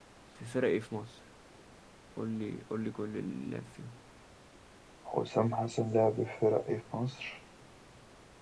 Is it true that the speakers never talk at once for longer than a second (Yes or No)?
Yes